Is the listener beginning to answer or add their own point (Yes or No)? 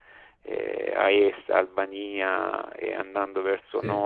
No